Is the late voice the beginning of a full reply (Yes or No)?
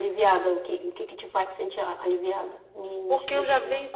Yes